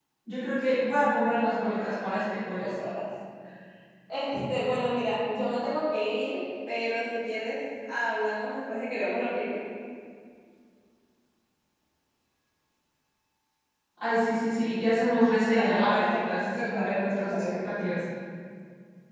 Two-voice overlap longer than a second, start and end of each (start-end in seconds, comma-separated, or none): 15.5-17.6